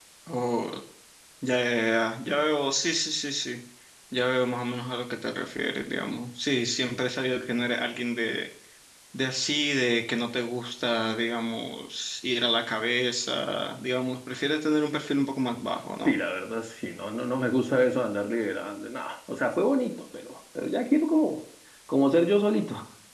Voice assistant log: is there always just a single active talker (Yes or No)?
Yes